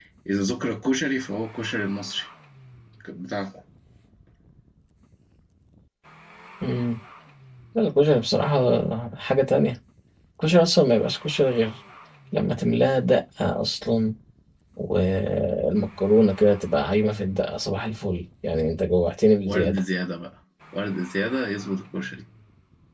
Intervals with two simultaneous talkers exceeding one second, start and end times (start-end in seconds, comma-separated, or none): none